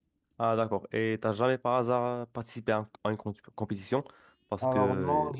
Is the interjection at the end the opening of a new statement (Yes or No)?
Yes